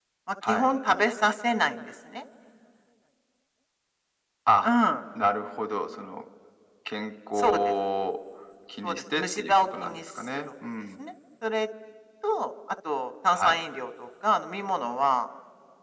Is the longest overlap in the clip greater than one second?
Yes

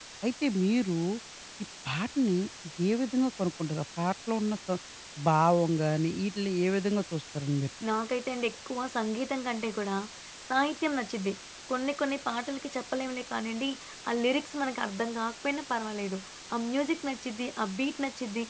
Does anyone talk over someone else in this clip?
No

